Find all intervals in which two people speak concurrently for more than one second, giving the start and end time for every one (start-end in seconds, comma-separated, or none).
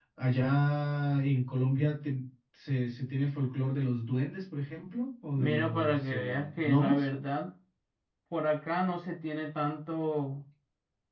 5.4-7.0